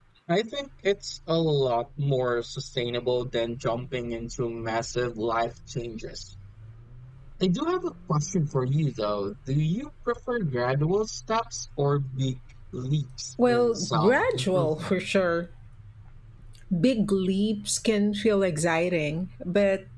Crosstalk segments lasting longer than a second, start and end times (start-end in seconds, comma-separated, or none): 13.5-15.0